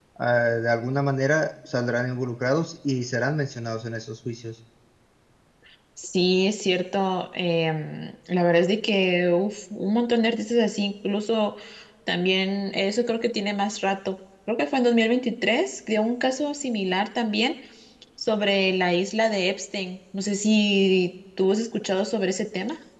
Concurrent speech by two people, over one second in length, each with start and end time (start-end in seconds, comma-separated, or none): none